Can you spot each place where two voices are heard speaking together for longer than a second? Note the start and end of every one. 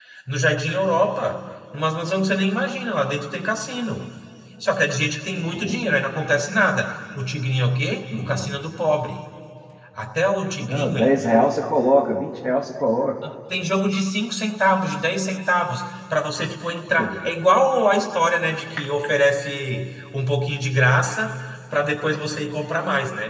none

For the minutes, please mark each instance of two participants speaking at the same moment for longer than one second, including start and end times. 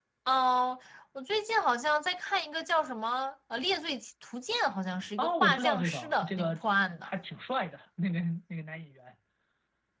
5.2-6.6

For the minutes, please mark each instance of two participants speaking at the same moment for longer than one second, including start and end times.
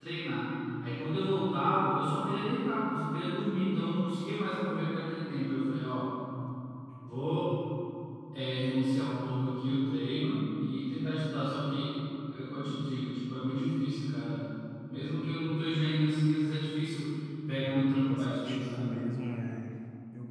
17.5-18.9

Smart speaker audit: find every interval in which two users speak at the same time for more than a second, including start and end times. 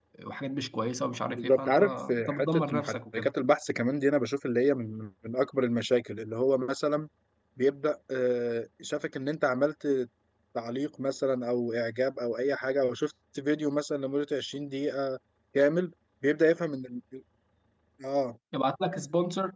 1.4-3.3

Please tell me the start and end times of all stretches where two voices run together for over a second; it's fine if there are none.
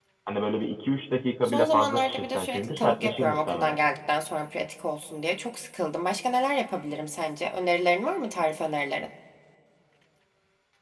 1.4-3.8

